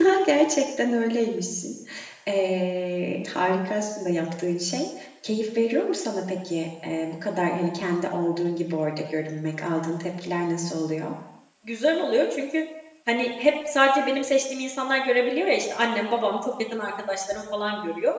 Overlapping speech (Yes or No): No